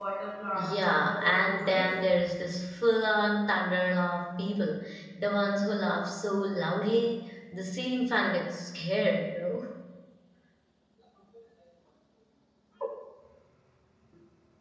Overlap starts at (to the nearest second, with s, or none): 1 s